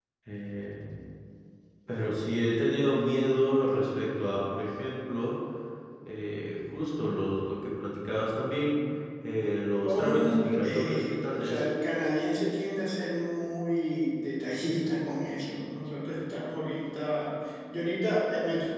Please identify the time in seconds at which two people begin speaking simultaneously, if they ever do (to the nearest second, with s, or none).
10 s